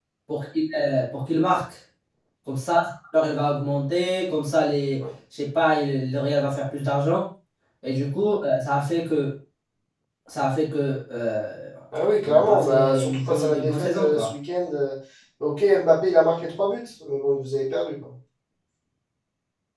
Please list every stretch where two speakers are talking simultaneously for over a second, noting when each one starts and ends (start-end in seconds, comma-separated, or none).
12.2-14.3